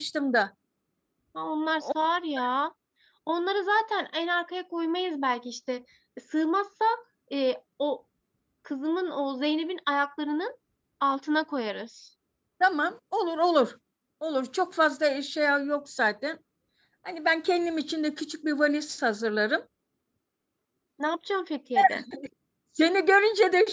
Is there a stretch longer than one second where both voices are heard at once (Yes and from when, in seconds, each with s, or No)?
No